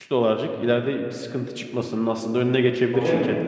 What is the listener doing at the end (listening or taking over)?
taking over